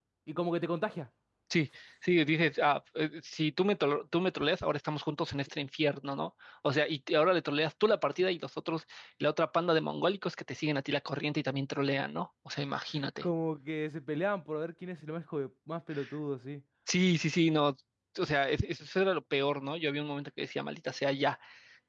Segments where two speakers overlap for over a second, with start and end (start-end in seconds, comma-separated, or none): none